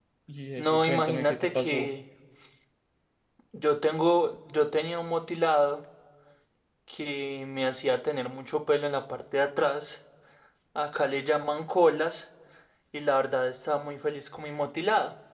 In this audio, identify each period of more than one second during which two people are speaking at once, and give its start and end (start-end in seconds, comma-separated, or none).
0.6-1.9